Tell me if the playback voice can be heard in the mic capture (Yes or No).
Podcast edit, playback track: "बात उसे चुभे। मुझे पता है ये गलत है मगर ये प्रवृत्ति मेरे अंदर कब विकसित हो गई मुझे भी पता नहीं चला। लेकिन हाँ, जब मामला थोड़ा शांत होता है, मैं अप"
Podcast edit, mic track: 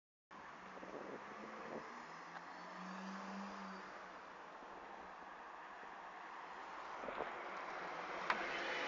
No